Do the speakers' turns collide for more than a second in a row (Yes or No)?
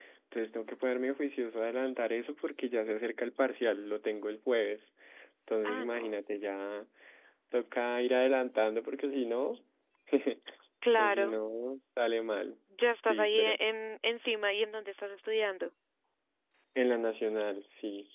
No